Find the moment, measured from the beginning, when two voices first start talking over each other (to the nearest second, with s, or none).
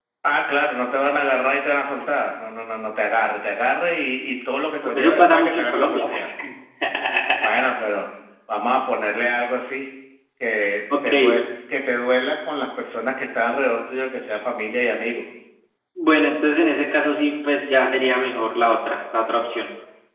5 s